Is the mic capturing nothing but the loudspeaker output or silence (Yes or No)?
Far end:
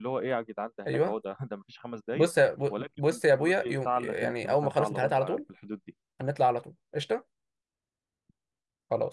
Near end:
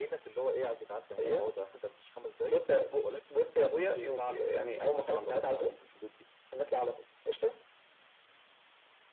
Yes